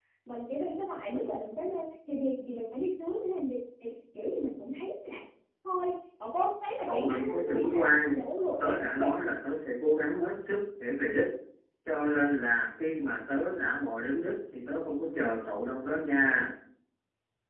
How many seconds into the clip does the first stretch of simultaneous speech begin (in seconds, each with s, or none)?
6.9 s